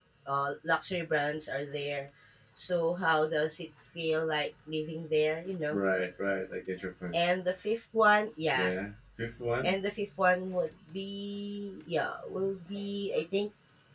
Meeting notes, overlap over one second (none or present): none